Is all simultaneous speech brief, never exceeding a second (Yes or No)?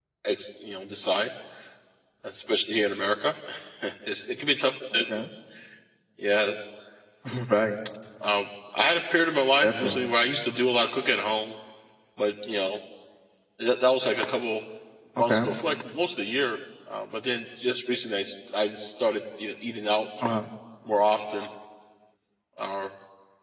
Yes